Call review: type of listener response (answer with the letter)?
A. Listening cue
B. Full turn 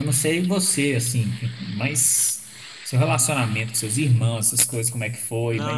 B